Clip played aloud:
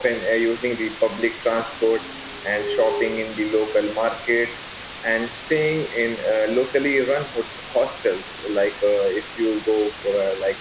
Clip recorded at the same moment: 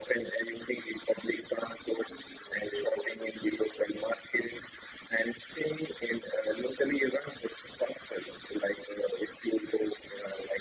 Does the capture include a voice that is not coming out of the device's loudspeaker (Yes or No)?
No